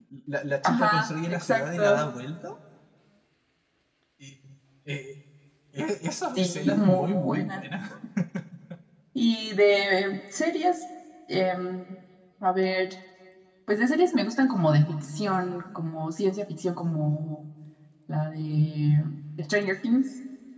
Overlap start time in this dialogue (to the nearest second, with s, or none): 1 s